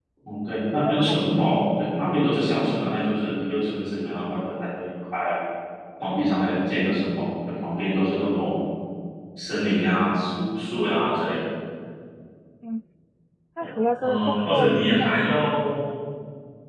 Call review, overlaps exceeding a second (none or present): present